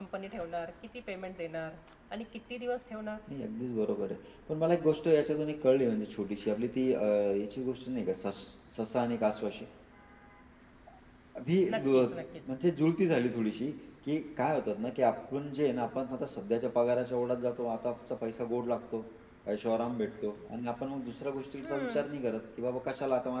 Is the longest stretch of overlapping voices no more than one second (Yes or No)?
Yes